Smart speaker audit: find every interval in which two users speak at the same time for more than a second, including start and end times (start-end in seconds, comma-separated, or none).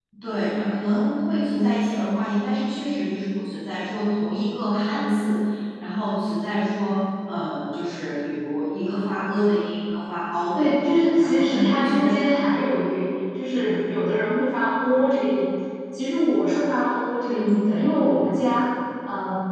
10.5-12.1